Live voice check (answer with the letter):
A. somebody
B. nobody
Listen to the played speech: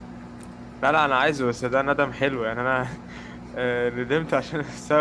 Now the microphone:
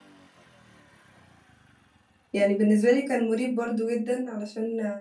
A